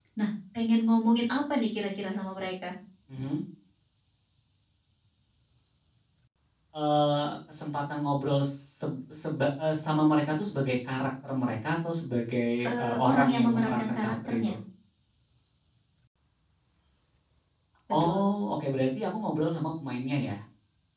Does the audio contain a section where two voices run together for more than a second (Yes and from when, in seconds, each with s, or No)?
Yes, from 12.7 s